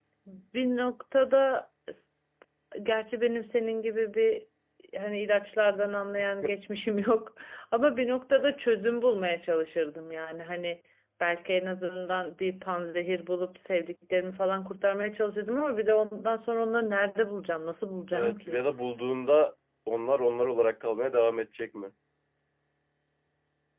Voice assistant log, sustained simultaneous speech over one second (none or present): none